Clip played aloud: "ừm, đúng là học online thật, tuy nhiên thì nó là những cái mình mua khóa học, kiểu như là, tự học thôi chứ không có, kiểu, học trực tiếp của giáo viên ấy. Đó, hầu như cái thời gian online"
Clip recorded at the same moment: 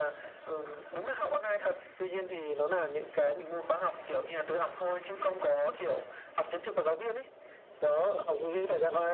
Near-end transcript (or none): none